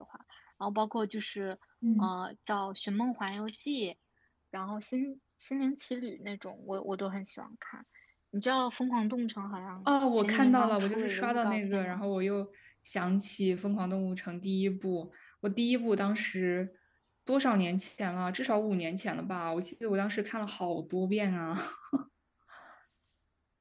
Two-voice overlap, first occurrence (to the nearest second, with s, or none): 10 s